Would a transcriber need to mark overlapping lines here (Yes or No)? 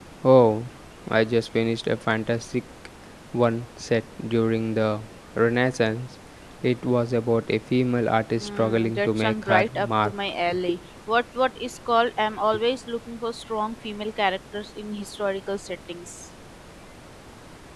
Yes